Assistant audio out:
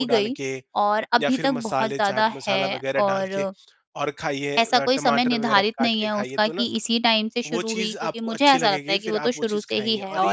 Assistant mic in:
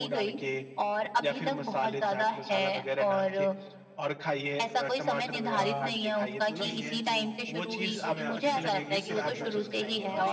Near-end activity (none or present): present